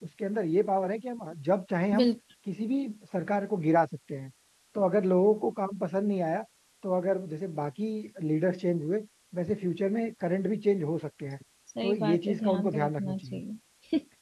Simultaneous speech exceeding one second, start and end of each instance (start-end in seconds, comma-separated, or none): 11.8-13.4